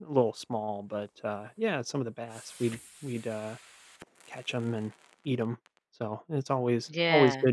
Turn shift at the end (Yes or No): No